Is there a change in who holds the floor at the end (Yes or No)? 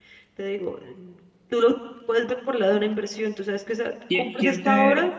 Yes